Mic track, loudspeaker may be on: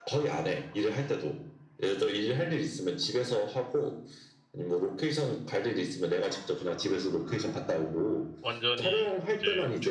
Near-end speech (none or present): present